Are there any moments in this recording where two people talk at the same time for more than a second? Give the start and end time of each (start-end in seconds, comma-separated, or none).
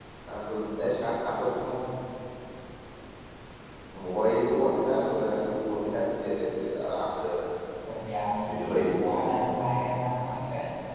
none